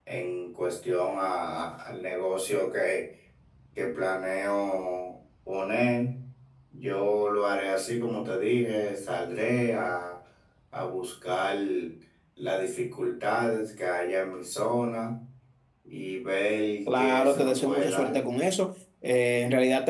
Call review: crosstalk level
present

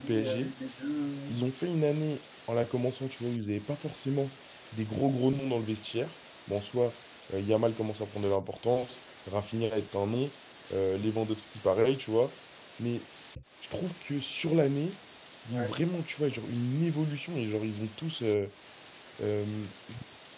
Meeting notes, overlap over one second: none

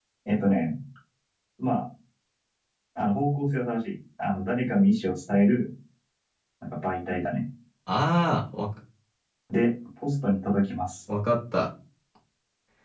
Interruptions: none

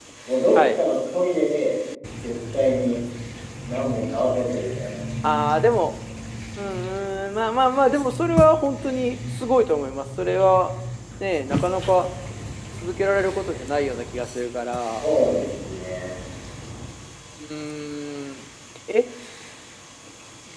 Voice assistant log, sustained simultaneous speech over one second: none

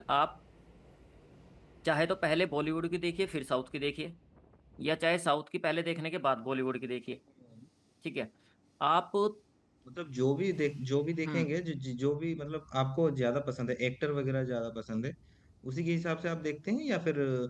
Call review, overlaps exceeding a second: none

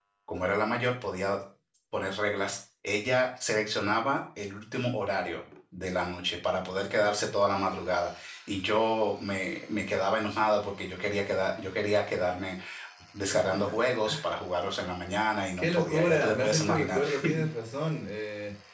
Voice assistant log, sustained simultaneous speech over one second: present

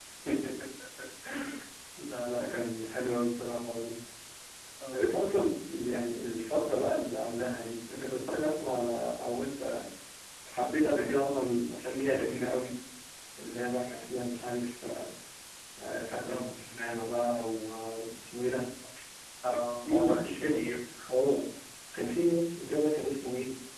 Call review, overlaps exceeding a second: present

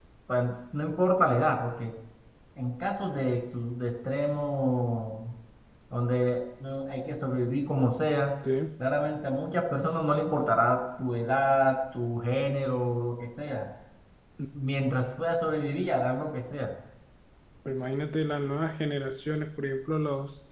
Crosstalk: none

